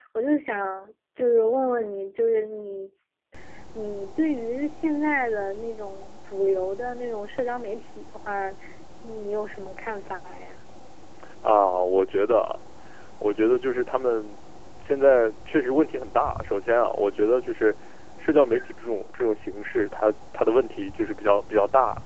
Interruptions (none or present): none